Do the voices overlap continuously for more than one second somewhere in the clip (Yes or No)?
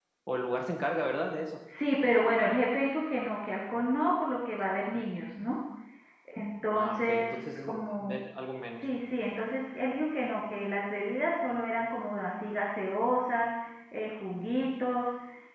Yes